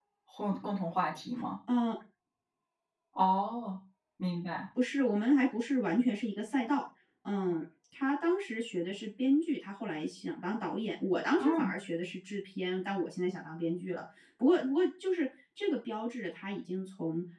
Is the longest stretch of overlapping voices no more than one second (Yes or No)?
Yes